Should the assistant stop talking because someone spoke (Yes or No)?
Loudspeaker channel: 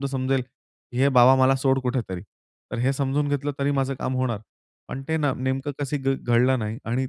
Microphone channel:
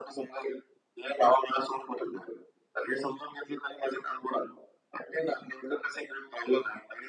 No